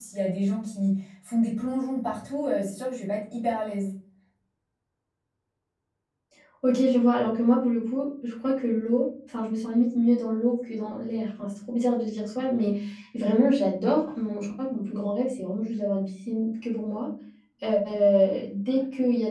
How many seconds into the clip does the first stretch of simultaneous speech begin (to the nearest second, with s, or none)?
none